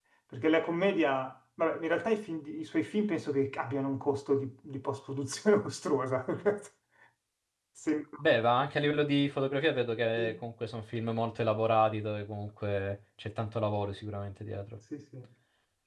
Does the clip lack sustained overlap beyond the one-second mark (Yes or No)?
Yes